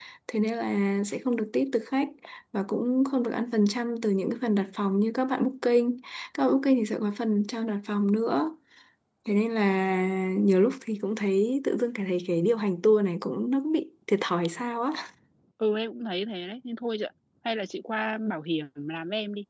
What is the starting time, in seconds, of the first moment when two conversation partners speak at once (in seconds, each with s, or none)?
none